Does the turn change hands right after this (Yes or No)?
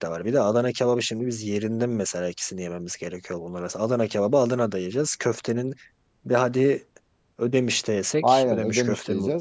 Yes